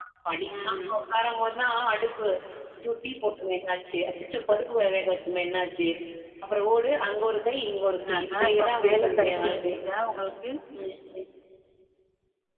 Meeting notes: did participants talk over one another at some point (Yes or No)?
Yes